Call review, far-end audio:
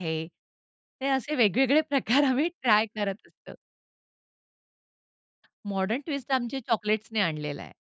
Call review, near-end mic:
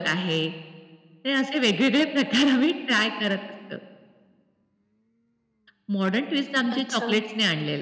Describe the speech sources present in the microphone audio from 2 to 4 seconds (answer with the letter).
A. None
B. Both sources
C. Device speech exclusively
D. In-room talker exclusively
C